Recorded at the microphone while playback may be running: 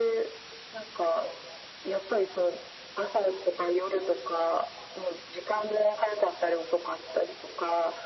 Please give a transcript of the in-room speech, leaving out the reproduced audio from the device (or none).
none